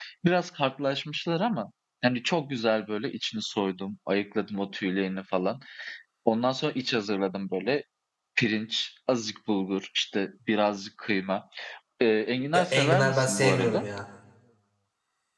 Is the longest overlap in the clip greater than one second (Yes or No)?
Yes